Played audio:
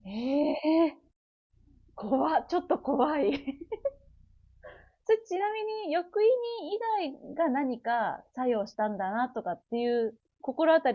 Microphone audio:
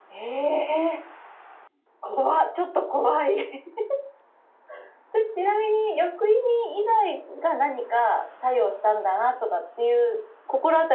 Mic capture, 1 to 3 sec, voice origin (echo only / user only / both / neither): echo only